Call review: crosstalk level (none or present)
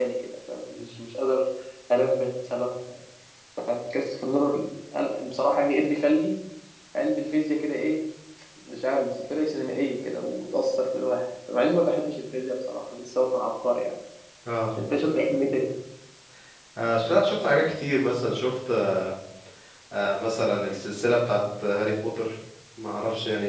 none